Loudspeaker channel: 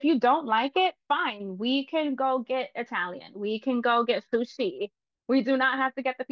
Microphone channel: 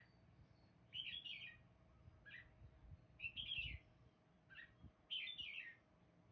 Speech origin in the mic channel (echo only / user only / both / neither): neither